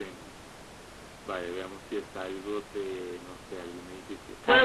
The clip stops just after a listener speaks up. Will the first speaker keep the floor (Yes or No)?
No